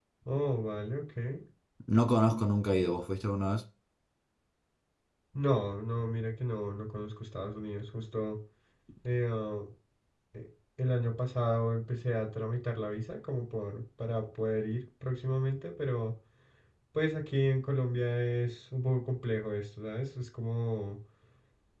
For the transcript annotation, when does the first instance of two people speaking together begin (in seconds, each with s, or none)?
none